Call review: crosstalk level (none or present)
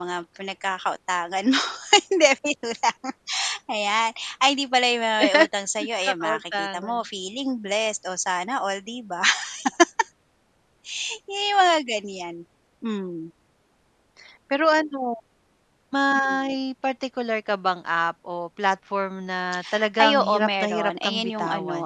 present